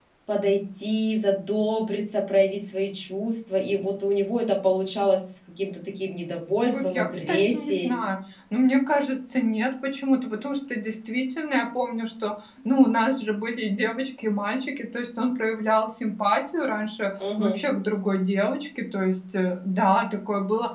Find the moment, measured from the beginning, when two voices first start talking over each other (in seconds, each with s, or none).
6.6 s